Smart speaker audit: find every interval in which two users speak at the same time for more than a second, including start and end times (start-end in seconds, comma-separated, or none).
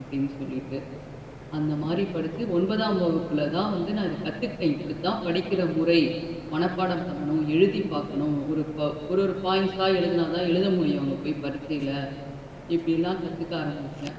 none